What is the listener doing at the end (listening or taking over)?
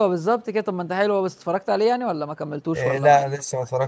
taking over